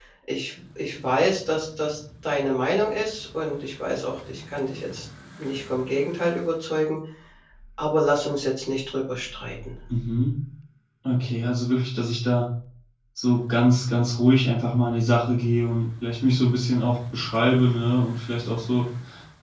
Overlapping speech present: No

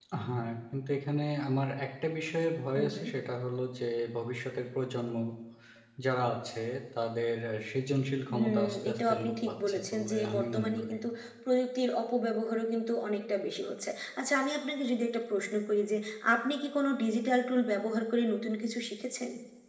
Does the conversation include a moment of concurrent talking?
Yes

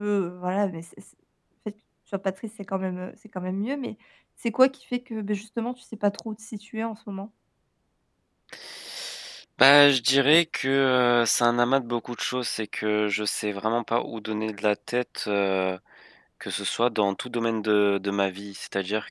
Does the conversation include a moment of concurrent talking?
No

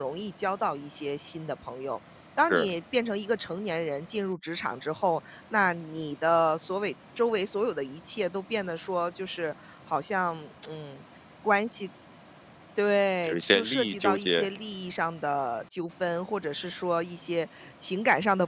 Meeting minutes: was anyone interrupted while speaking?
Yes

